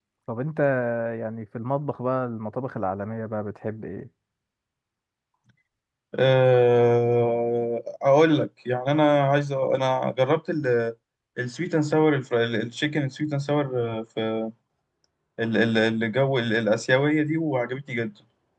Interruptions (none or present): none